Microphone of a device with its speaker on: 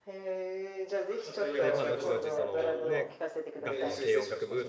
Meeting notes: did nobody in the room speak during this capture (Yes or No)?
No